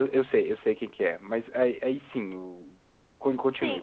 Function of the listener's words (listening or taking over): taking over